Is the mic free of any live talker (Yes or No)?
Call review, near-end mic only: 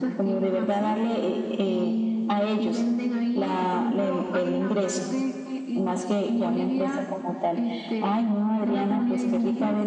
Yes